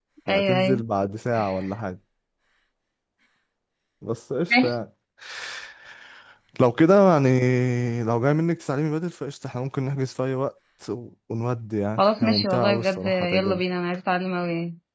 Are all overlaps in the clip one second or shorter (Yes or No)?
No